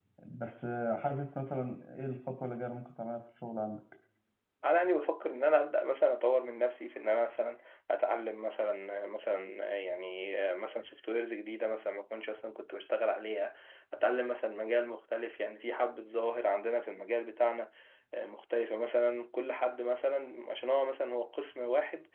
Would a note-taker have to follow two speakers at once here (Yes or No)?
No